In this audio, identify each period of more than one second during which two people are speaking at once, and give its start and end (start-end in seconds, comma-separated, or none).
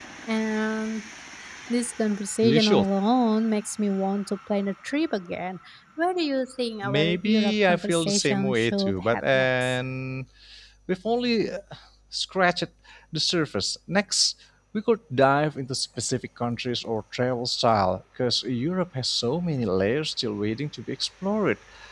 6.8-9.8